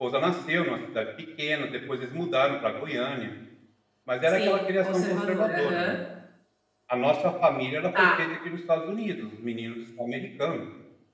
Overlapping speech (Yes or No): Yes